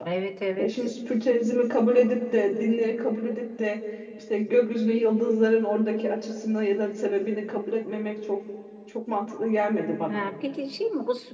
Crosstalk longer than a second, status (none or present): none